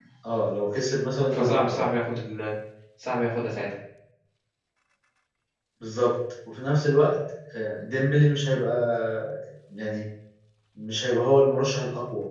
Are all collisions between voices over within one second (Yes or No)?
Yes